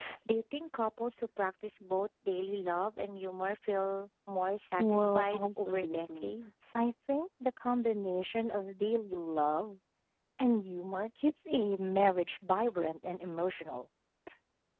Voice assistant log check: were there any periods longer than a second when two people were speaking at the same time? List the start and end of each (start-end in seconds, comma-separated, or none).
4.8-6.3